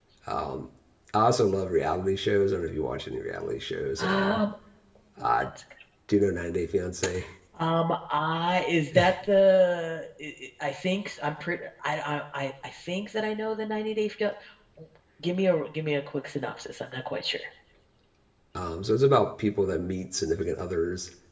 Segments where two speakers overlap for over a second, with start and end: none

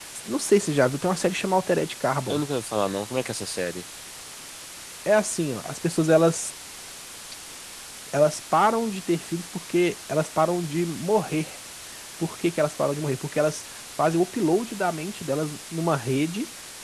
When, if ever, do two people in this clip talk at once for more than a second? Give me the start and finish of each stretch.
none

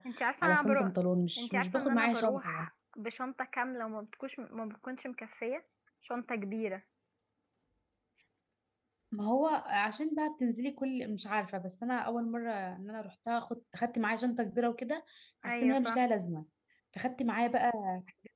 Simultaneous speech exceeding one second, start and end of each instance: 1.4-2.7

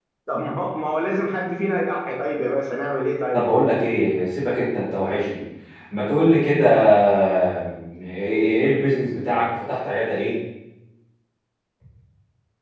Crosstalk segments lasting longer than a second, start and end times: none

